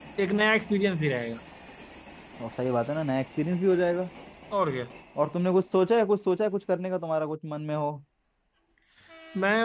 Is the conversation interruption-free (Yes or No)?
Yes